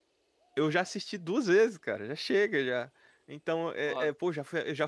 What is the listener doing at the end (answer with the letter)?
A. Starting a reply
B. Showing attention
B